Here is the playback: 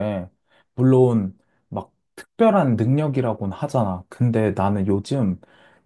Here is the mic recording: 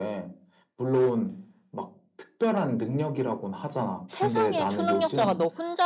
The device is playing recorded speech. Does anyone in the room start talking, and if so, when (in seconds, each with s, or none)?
4.1 s